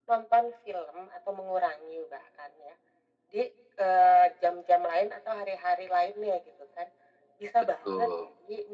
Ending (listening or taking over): listening